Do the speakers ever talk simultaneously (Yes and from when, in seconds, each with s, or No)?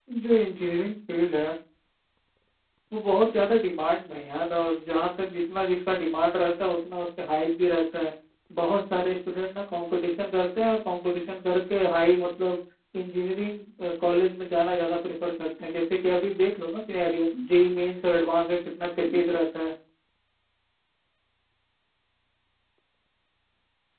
No